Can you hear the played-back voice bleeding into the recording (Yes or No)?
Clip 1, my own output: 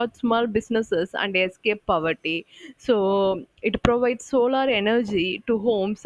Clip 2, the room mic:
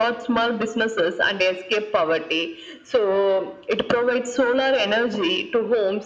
Yes